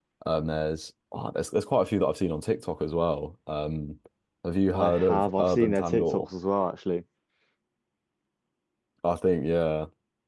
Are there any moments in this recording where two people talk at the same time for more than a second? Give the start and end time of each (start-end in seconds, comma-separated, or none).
4.7-6.3